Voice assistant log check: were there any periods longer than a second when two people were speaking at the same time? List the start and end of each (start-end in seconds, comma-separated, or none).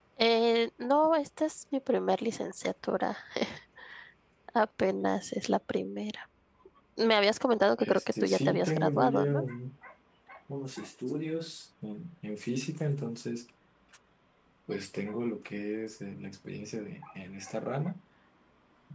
7.8-9.4